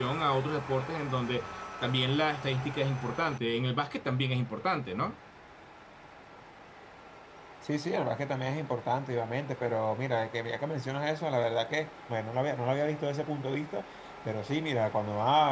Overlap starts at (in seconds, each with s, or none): none